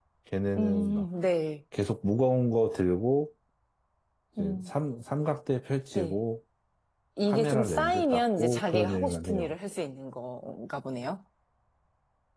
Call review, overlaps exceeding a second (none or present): present